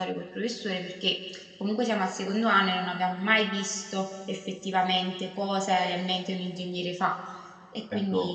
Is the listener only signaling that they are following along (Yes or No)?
No